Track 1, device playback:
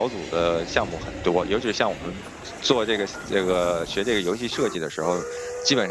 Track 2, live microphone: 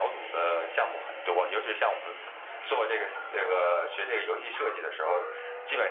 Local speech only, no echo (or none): none